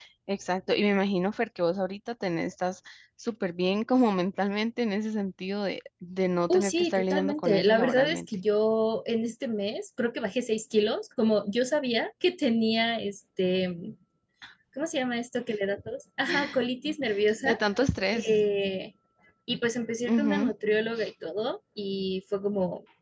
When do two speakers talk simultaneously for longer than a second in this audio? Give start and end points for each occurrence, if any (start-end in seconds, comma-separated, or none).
6.5-8.2